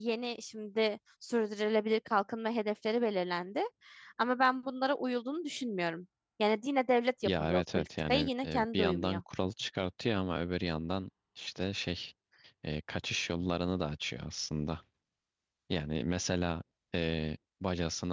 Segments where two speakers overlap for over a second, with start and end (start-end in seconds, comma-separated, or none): 7.2-9.2